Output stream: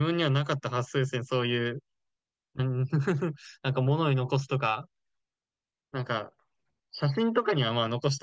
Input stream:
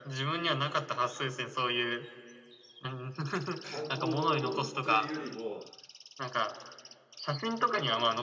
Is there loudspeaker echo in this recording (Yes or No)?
Yes